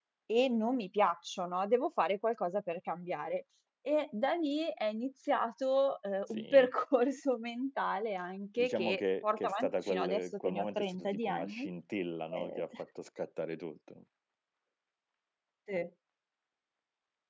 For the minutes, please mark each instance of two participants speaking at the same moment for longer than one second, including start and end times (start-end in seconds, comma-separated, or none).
8.6-11.7